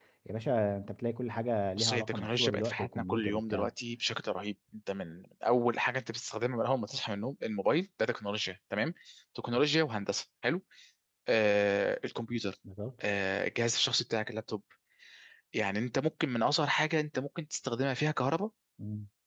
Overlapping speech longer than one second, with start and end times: 1.8-3.7

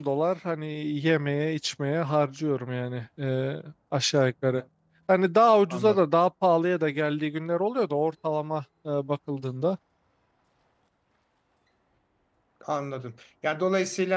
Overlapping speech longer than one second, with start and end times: none

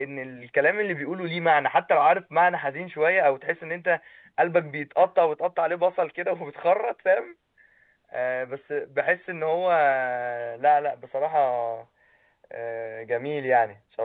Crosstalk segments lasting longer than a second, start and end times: none

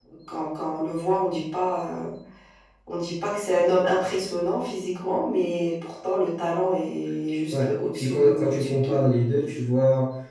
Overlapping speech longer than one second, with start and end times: 7.5-9.0

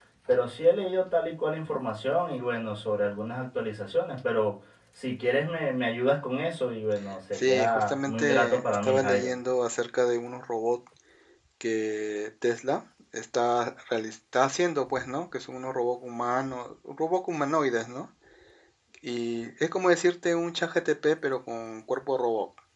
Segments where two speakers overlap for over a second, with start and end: 7.3-9.3

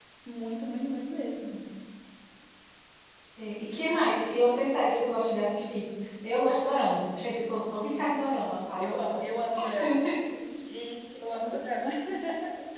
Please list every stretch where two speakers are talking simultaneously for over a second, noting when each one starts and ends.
none

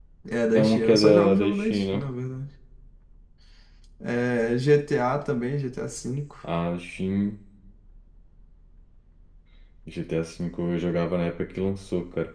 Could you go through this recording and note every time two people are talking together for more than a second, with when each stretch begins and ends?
0.5-2.0

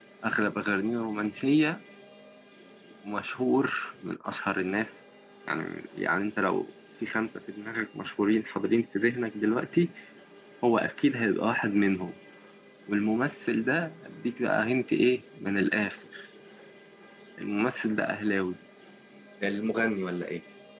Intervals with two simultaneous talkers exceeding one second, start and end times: none

